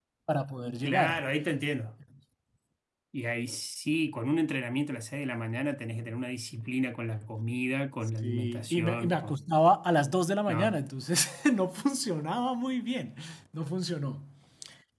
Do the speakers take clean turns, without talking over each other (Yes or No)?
No